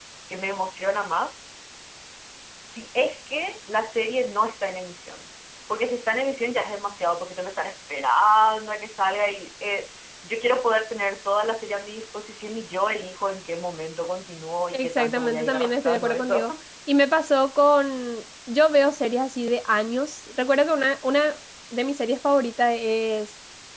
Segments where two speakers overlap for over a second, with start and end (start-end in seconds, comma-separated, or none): 14.7-16.5